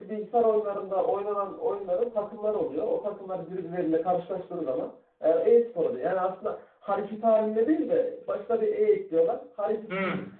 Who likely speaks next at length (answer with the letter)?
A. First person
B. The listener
B